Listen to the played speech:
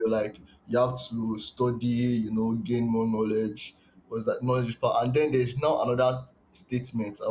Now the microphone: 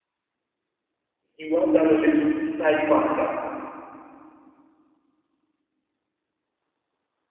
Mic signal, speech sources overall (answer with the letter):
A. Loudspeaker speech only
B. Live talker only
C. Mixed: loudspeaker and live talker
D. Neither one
B